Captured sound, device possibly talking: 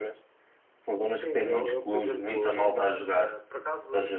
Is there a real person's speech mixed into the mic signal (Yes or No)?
Yes